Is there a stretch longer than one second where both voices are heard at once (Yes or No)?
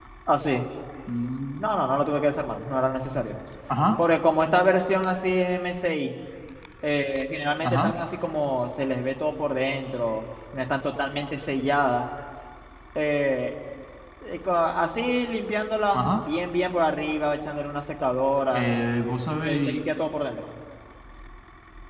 No